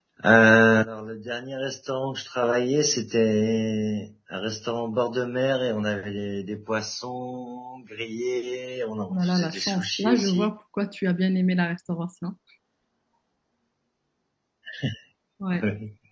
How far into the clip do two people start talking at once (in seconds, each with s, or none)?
9.1 s